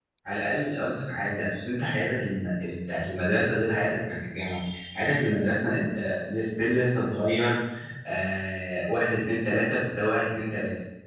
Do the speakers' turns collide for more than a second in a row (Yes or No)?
No